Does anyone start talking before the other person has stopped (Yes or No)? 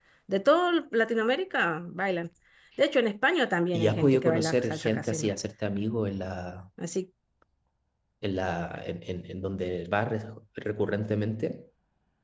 Yes